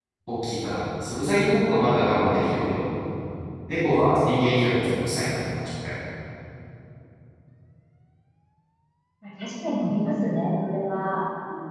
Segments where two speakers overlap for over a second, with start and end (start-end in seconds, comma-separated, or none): none